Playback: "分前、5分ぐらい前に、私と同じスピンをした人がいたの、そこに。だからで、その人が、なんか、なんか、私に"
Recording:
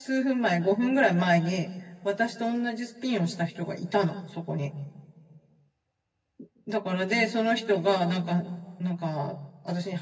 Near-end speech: none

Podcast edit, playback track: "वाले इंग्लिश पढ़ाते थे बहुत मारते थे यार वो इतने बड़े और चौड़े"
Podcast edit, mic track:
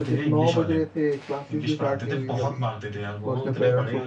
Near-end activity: present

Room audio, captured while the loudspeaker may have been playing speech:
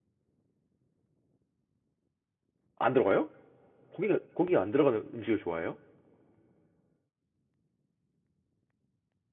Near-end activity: present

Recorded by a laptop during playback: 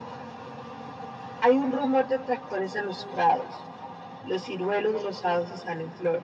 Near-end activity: none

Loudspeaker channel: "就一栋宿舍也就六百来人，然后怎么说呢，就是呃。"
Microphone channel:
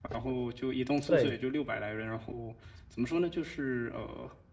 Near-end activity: present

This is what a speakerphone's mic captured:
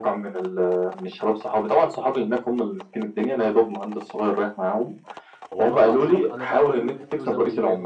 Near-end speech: present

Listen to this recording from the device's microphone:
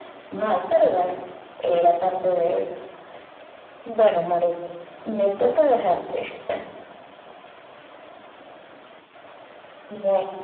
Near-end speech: none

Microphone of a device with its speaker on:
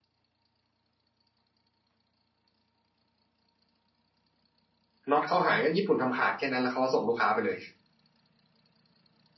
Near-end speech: present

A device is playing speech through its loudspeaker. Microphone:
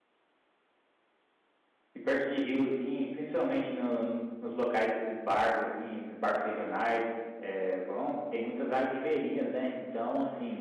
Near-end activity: present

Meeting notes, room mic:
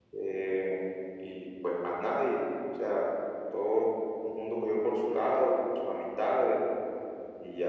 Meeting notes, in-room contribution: none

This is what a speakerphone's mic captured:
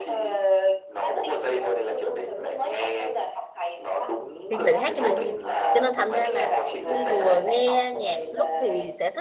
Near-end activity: present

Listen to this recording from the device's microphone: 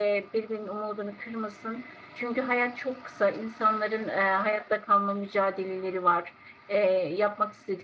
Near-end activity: none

